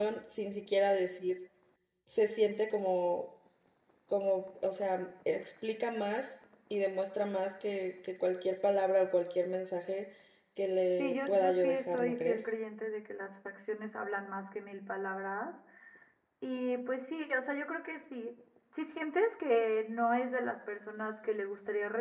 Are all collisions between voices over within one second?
No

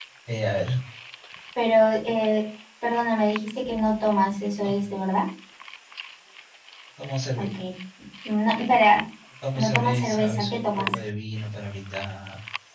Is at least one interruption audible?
Yes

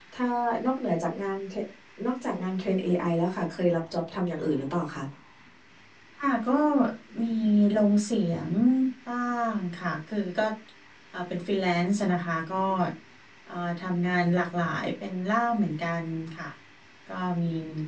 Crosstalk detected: No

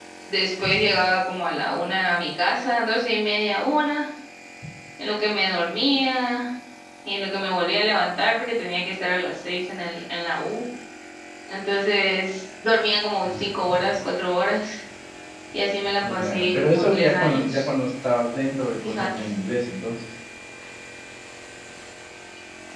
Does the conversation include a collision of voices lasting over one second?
Yes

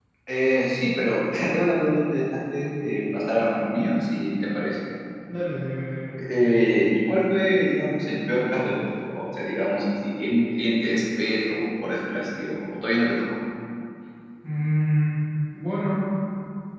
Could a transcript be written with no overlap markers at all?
Yes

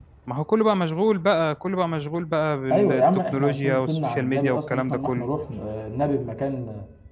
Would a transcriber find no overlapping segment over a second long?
No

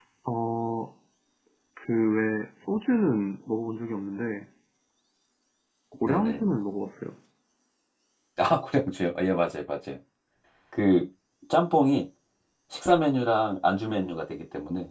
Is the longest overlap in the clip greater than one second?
No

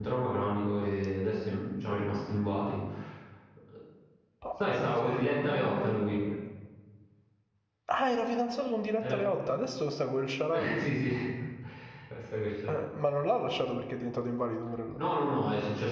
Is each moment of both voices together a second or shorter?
No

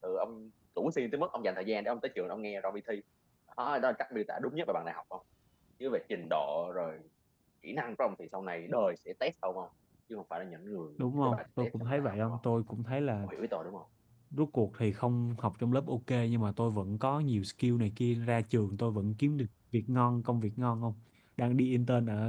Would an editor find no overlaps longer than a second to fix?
No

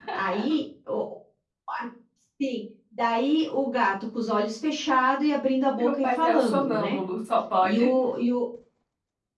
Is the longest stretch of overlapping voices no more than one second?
No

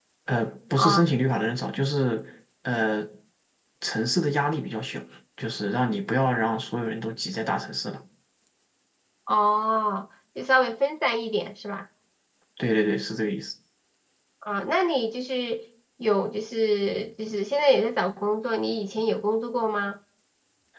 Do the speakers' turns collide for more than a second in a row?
No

